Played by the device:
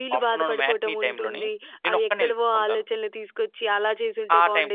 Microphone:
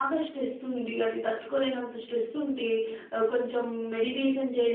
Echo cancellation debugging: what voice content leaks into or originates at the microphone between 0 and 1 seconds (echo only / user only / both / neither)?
user only